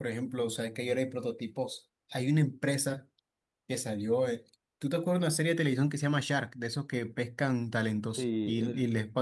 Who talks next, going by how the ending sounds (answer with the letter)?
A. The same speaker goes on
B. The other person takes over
A